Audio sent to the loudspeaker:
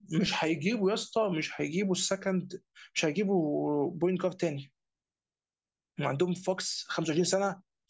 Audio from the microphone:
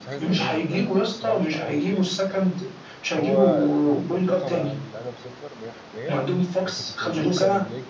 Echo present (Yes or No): Yes